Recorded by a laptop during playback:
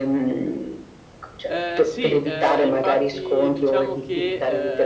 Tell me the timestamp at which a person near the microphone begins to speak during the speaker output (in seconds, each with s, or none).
1.4 s